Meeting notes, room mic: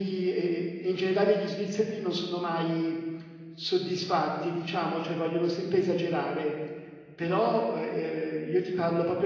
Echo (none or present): present